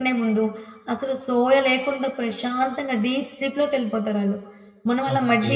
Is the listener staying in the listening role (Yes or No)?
No